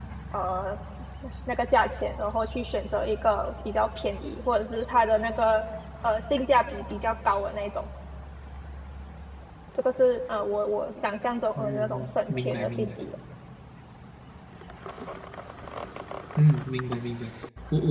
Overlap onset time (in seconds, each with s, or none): 11.6 s